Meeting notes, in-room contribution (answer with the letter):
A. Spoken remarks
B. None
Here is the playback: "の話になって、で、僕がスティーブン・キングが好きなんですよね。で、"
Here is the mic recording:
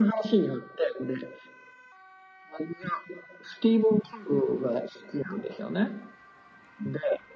B